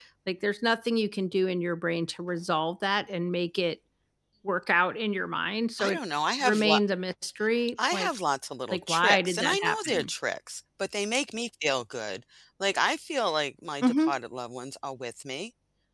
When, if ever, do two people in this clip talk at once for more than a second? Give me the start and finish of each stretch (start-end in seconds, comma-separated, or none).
8.7-10.1